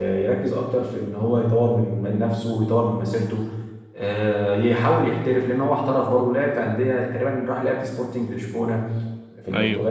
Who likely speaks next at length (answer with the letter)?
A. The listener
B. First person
B